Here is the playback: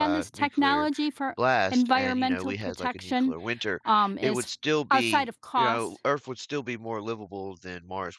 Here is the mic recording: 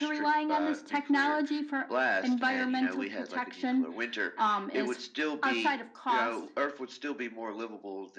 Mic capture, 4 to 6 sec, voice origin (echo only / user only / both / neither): echo only